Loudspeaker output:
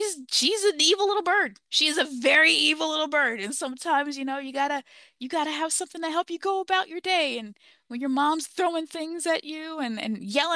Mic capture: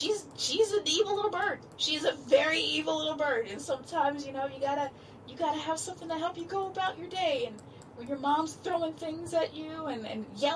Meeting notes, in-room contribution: none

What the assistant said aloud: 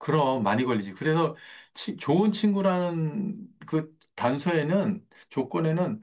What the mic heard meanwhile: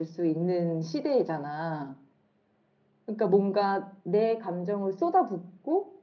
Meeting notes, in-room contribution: present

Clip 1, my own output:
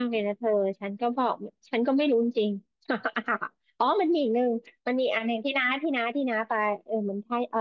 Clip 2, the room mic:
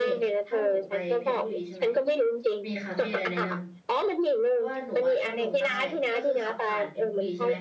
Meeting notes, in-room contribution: present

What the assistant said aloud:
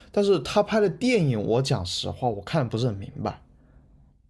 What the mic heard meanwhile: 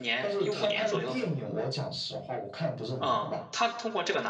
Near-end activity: present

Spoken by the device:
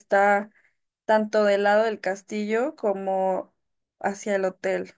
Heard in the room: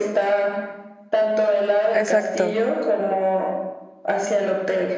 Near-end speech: present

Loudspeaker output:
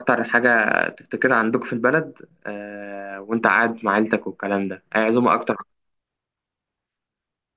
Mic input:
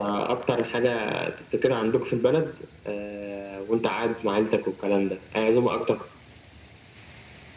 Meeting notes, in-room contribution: none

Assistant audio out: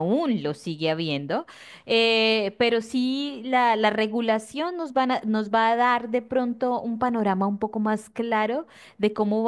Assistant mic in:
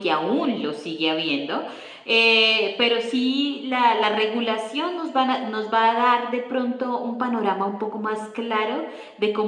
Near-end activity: none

